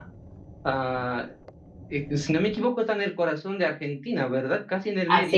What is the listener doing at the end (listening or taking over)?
taking over